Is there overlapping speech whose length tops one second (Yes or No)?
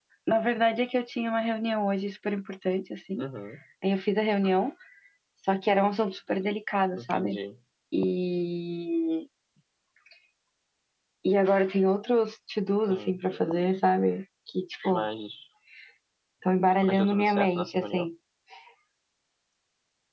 Yes